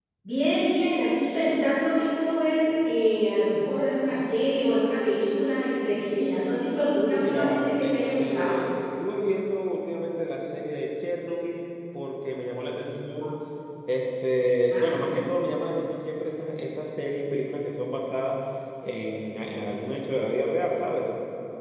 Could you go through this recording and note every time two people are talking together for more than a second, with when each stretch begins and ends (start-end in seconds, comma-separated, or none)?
7.2-8.6